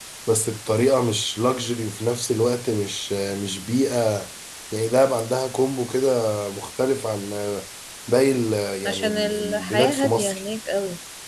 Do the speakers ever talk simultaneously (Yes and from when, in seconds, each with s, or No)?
Yes, from 8.9 s